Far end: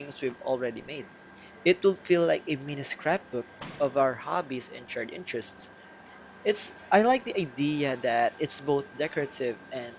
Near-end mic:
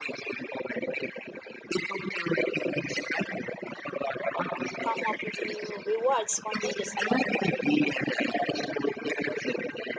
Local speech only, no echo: come up with new rewards spontaneously.

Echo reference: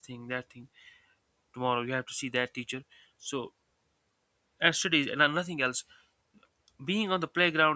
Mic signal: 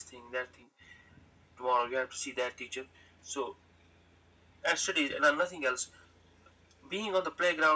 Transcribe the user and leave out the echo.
none

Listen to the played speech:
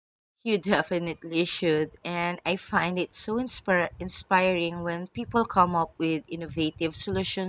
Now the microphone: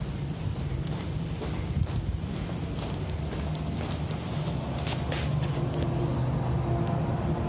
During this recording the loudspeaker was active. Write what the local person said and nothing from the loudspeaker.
none

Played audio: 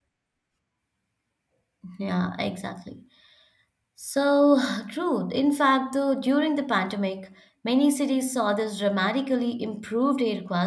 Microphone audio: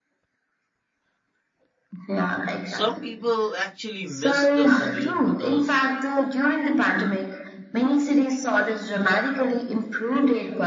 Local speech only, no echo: Some people actually miss the commute because

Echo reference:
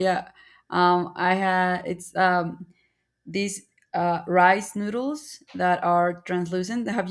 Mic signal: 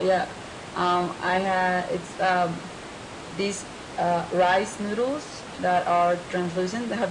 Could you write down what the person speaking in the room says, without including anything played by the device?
none

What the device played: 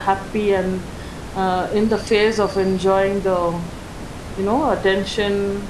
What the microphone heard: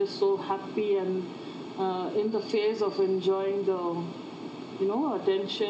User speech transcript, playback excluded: none

